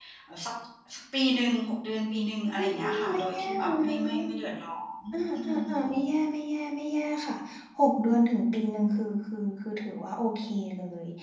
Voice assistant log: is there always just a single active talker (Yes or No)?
No